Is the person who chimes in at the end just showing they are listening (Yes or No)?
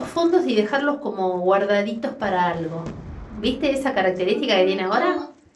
No